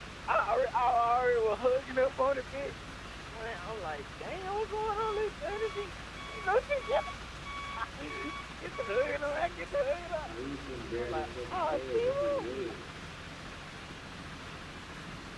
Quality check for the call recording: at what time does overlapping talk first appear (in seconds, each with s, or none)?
11.0 s